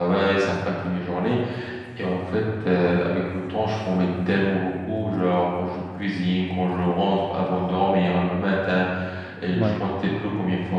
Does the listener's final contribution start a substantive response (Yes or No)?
No